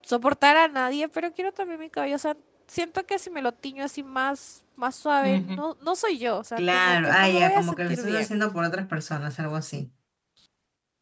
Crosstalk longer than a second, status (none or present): present